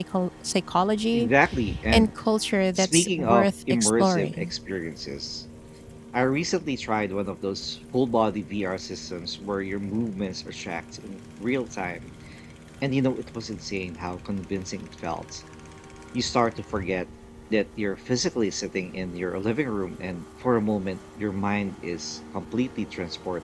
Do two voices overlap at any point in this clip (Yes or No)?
Yes